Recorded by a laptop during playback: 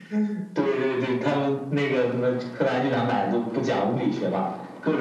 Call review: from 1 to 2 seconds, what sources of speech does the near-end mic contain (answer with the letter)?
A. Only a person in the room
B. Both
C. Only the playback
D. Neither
C